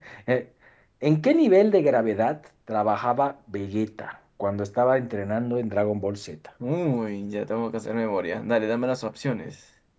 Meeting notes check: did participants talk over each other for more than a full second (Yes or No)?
No